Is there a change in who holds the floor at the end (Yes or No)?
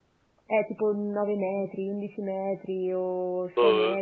Yes